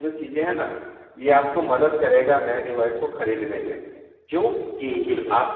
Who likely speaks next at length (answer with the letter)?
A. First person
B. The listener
A